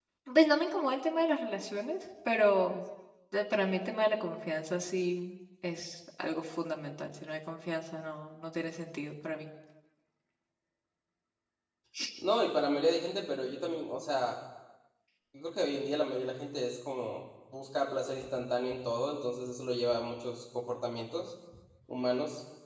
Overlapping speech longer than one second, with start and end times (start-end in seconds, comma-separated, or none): none